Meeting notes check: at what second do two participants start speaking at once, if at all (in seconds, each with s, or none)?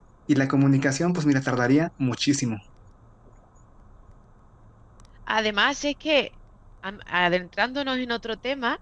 none